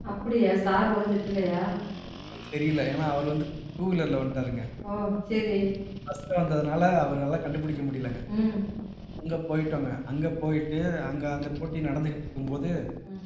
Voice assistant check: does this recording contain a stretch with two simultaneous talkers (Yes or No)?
No